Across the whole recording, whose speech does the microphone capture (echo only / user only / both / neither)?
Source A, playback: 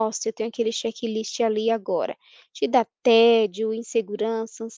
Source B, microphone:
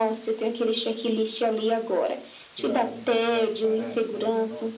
both